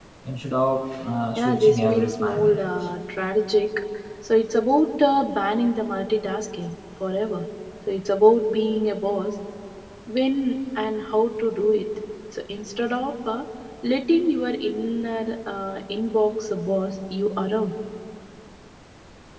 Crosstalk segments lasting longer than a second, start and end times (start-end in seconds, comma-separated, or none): 1.4-2.7